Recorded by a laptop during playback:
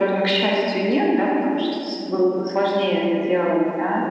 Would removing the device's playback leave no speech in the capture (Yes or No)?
Yes